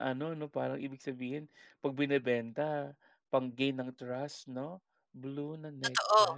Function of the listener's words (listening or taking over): taking over